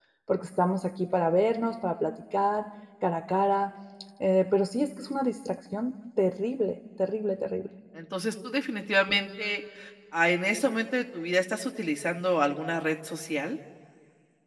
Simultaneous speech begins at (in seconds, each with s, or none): none